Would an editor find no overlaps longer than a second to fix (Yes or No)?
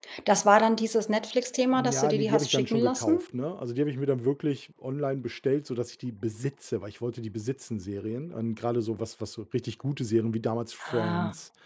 No